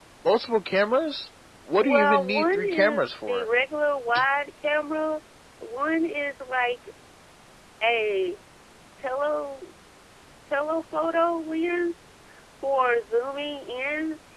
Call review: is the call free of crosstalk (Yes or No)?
No